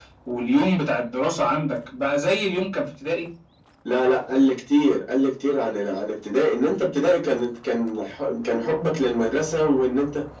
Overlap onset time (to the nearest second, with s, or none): none